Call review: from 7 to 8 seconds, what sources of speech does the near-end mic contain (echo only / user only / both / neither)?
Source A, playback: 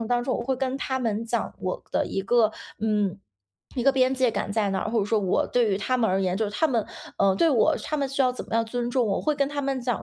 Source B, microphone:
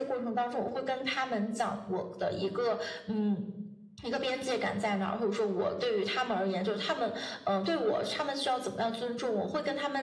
echo only